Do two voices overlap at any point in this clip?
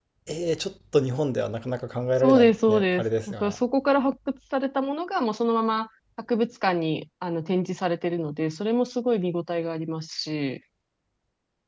Yes, from 2.2 s

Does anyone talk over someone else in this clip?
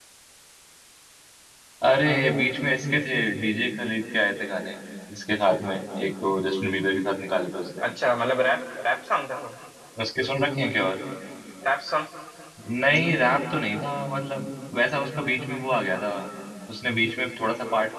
No

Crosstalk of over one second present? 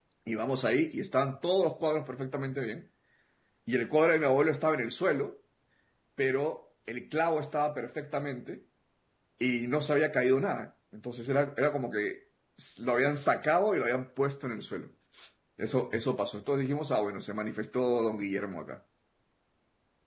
No

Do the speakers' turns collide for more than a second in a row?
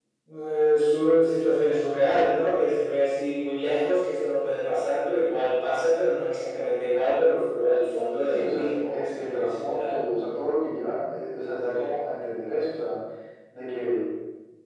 Yes, from 8.3 s

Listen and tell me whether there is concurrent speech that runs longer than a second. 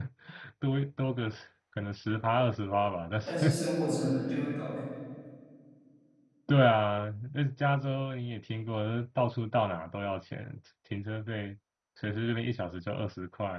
No

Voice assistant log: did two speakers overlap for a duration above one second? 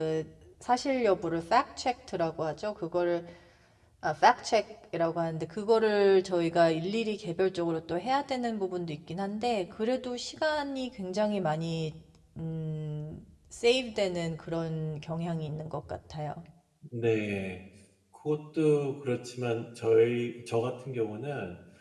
No

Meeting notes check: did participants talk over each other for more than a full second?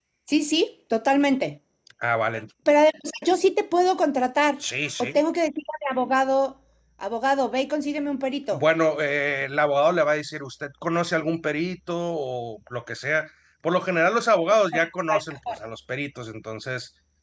No

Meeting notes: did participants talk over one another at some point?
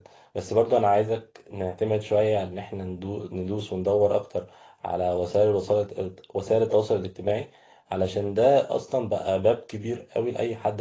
No

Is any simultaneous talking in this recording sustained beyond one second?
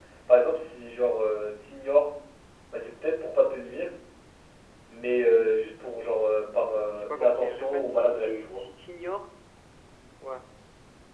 Yes, from 6.9 s

